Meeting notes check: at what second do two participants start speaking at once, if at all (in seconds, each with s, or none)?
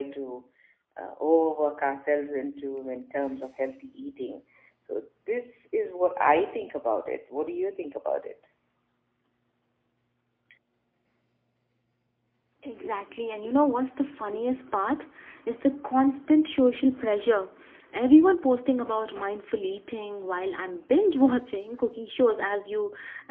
none